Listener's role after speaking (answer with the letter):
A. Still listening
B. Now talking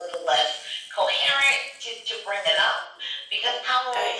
A